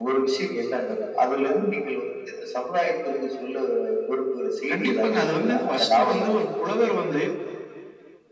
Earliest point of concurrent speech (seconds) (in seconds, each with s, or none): 4.7 s